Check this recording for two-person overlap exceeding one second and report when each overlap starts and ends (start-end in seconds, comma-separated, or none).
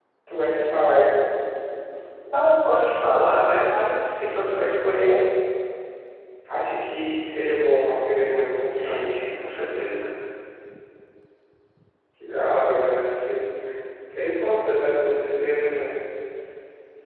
none